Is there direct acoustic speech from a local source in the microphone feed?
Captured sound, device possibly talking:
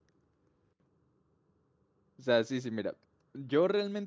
Yes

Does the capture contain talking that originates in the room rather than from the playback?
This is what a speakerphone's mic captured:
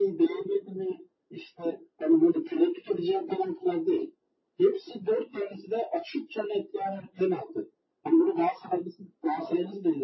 No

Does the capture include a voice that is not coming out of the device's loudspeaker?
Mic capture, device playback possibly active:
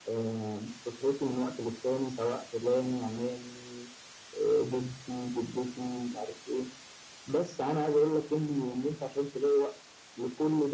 No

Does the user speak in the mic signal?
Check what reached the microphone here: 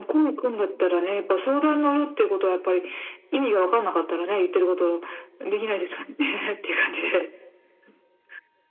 No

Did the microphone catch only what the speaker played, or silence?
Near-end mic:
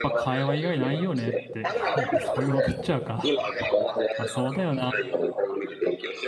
No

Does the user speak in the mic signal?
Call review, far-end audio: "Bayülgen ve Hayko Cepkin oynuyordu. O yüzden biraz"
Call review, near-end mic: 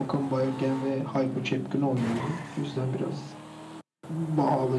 No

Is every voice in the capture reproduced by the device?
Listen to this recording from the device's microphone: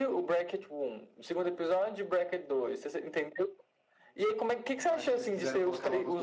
No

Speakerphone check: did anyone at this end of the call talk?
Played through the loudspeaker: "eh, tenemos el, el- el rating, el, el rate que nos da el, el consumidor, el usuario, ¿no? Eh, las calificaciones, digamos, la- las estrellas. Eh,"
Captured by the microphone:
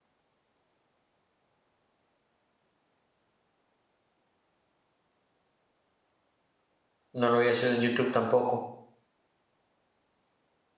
Yes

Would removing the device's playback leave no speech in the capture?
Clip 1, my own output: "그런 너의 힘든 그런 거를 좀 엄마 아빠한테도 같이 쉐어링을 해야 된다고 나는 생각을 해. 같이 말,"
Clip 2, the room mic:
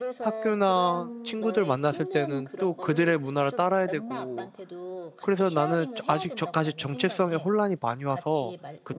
No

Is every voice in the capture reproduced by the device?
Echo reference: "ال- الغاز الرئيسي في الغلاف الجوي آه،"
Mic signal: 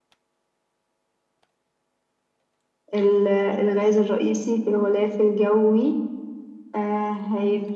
Yes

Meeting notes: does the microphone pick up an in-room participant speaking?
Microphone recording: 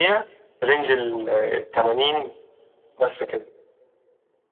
No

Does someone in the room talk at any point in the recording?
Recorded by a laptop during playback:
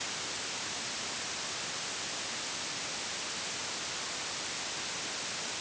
No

